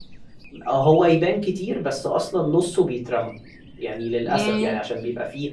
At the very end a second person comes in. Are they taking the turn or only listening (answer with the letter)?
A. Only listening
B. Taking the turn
A